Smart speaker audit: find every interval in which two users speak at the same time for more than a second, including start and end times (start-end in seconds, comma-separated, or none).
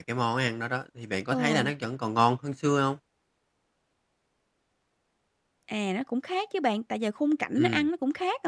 none